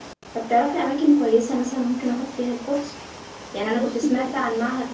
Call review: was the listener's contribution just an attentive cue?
Yes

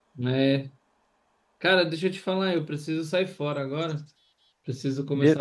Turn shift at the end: No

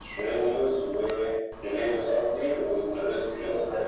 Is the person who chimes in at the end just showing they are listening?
No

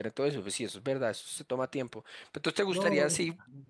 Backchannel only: Yes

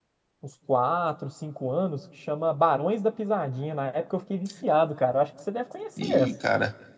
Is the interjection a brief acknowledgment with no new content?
No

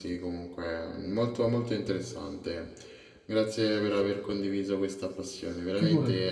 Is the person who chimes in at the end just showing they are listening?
Yes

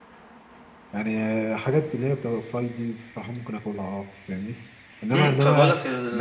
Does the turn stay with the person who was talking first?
No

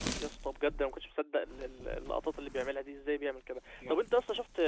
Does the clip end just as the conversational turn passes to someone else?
No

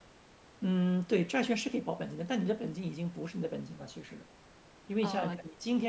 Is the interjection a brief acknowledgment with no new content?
Yes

